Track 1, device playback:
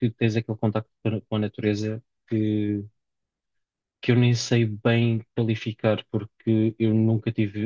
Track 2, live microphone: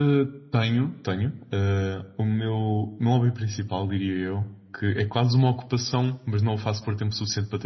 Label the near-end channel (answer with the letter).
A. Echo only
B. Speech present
B